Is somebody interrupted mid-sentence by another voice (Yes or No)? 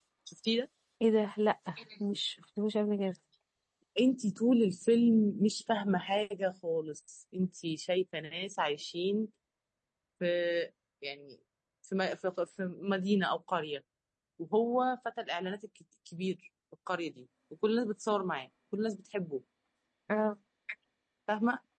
No